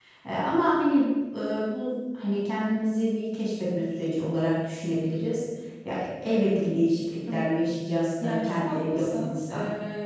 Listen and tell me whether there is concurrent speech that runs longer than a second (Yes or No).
Yes